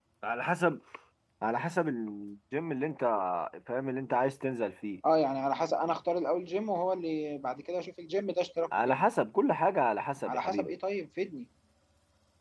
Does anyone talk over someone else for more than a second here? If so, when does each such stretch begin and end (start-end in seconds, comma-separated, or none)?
none